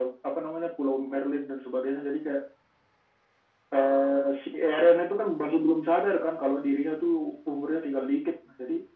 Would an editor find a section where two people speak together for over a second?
No

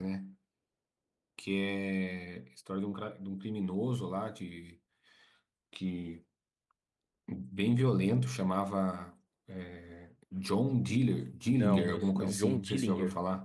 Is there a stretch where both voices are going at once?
Yes, from 11.5 s

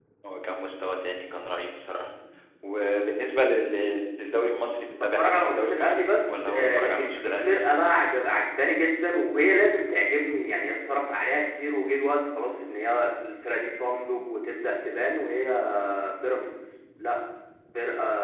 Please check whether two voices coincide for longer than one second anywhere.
Yes, from 5.0 s

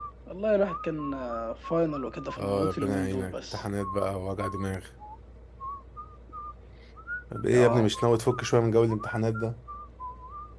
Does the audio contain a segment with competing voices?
Yes, from 2.4 s

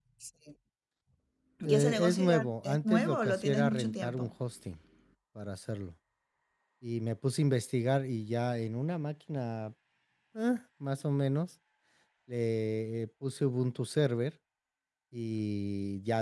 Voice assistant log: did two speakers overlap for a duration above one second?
Yes, from 1.7 s

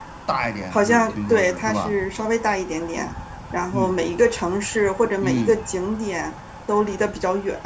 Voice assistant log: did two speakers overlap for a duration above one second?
Yes, from 0.7 s

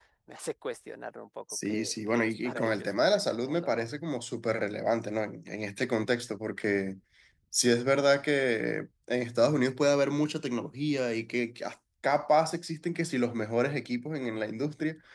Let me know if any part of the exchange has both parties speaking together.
Yes, from 1.5 s

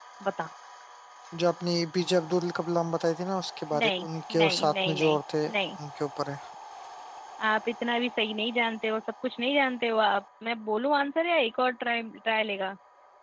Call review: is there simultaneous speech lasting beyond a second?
Yes, from 3.7 s

